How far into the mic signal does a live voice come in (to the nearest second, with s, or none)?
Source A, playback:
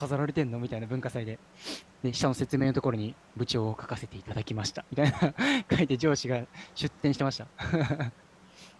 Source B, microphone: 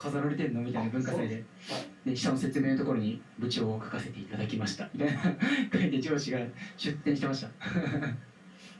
1 s